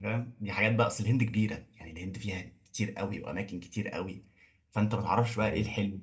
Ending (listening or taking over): listening